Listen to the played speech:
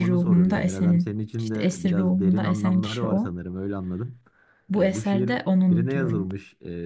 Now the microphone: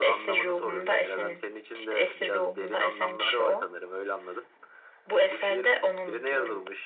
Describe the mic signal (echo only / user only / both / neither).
echo only